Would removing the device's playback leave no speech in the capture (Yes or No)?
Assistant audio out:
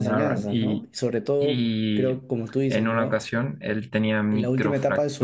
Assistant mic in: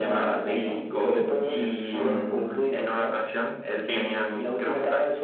No